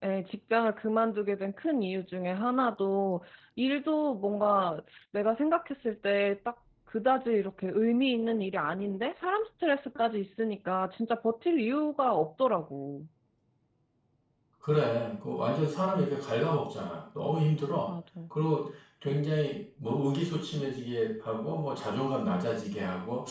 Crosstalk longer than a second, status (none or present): none